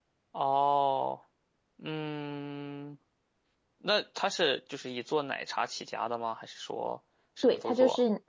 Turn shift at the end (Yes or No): Yes